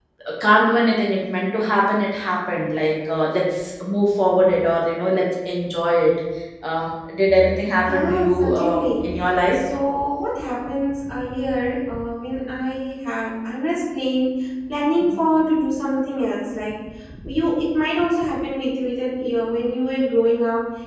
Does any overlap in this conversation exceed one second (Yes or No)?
Yes